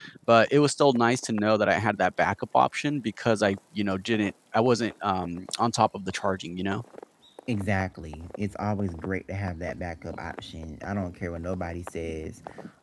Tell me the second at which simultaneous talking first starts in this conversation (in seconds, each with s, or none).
none